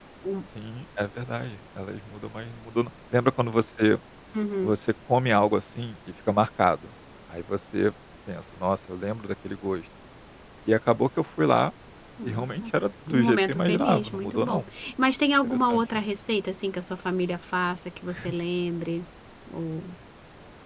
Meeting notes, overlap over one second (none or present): present